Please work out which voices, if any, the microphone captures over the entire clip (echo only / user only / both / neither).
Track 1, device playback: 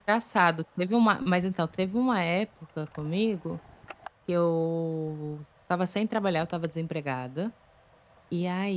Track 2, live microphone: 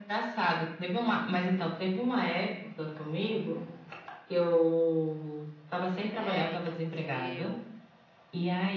both